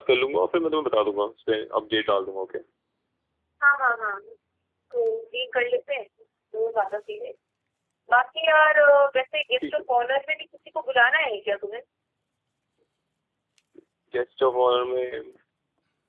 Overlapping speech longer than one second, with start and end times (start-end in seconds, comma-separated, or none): none